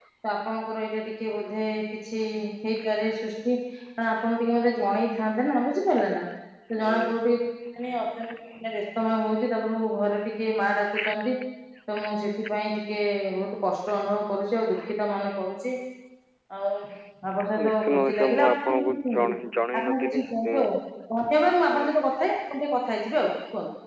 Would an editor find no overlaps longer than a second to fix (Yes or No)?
No